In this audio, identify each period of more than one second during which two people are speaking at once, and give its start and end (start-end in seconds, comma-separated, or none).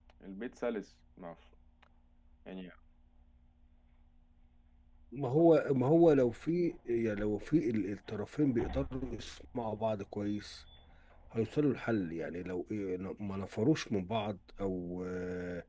none